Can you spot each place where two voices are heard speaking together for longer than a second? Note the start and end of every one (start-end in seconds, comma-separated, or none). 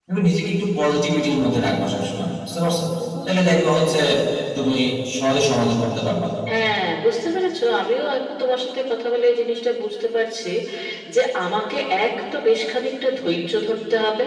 none